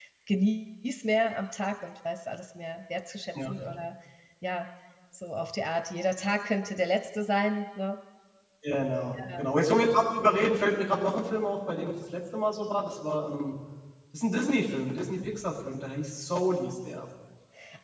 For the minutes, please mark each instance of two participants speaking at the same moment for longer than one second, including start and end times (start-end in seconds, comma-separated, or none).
none